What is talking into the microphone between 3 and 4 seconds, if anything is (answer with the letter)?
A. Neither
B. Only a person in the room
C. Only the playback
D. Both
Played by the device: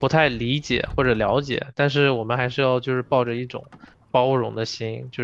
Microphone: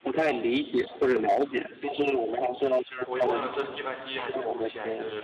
D